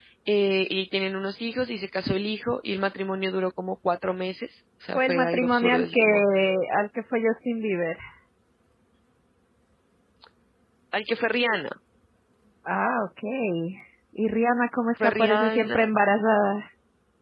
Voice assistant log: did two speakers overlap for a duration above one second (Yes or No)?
Yes